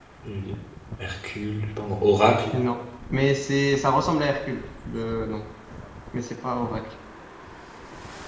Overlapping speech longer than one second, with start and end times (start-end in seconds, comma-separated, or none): none